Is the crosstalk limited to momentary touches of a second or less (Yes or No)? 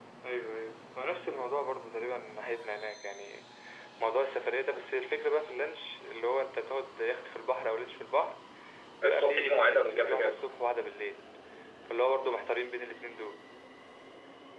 No